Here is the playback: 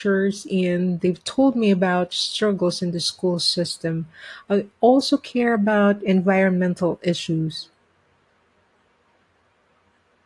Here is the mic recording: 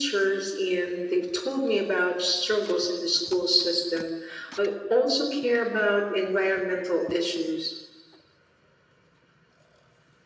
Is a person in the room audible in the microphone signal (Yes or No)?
No